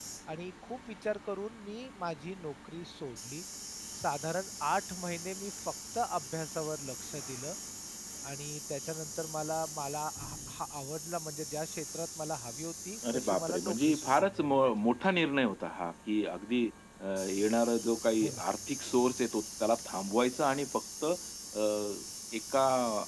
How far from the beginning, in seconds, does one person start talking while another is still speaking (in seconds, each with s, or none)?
13.0 s